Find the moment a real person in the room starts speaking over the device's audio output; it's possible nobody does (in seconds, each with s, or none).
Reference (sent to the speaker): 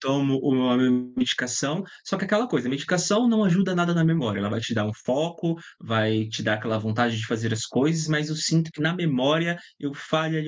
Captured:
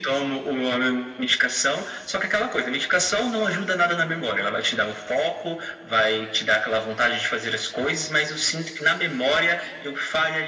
none